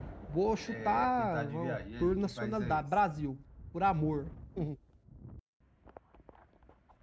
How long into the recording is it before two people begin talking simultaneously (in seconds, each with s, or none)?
0.7 s